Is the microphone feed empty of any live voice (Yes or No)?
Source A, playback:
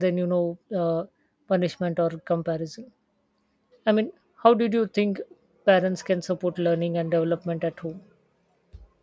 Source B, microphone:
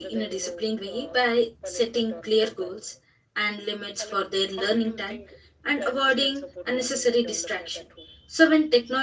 No